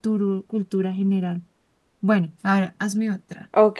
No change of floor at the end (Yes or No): No